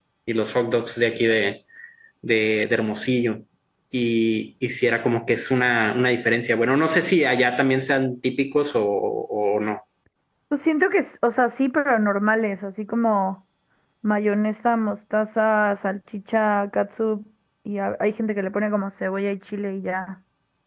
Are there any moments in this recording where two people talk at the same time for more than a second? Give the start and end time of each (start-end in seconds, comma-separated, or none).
none